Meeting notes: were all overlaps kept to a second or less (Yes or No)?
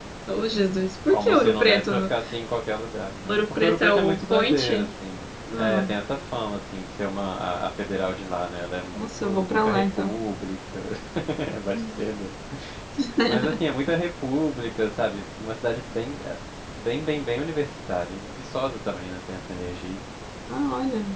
No